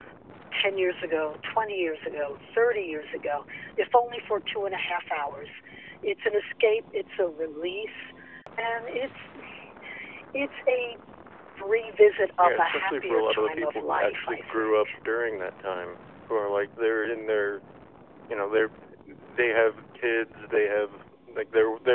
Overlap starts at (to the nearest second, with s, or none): 12 s